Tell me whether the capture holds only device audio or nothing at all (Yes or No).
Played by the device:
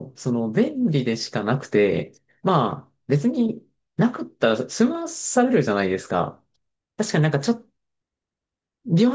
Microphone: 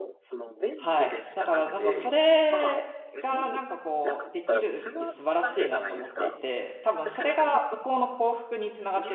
No